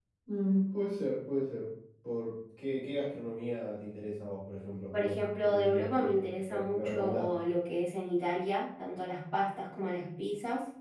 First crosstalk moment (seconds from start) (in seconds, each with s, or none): 4.9 s